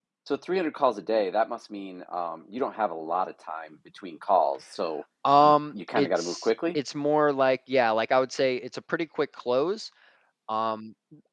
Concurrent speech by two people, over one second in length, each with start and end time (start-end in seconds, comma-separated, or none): 5.4-6.8